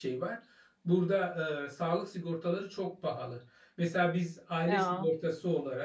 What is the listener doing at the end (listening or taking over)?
listening